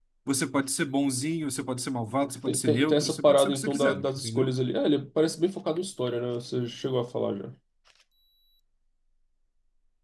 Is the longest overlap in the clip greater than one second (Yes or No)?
Yes